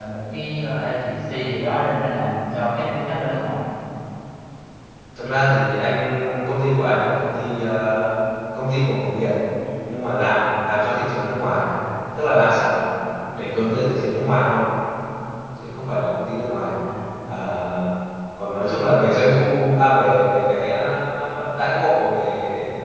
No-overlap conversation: Yes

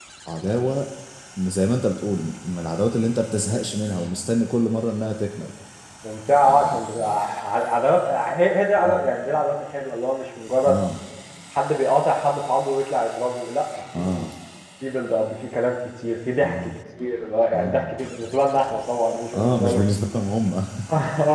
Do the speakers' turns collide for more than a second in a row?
No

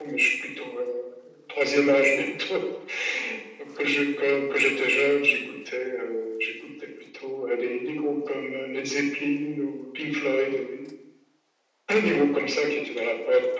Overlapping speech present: No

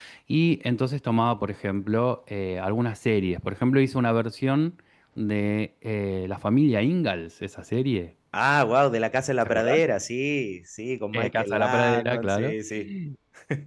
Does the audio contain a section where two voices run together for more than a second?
Yes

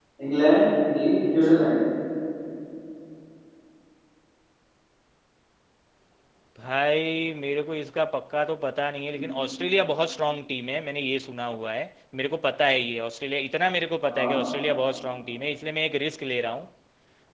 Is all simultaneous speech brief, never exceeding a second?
Yes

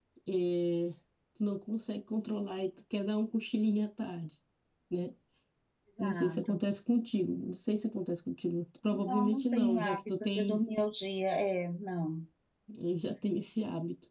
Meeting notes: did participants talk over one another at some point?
Yes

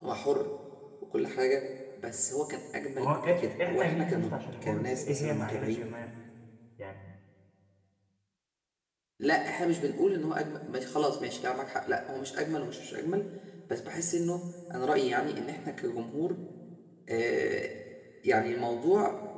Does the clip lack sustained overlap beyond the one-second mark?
No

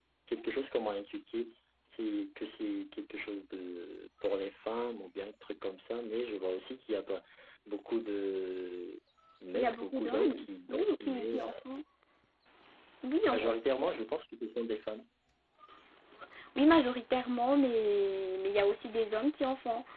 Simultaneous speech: Yes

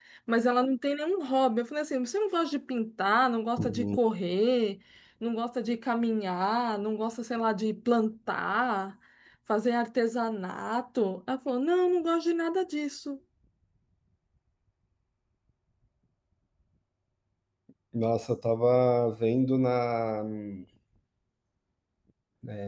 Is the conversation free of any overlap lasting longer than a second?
Yes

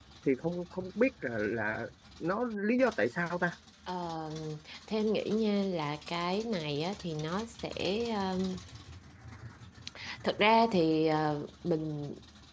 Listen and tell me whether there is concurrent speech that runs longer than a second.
No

